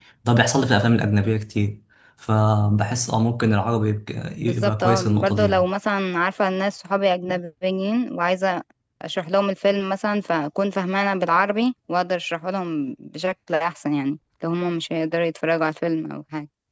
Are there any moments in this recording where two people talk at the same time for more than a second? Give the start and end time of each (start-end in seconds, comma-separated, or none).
4.4-5.7